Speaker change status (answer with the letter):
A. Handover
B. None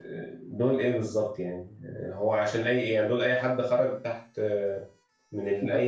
B